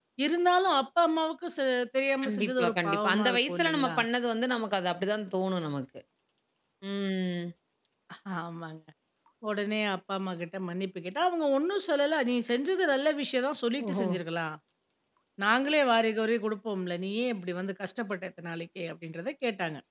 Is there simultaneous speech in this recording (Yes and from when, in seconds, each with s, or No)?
Yes, from 2.2 s